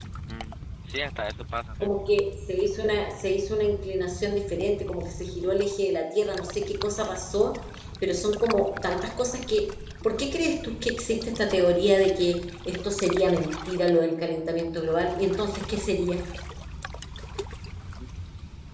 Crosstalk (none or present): none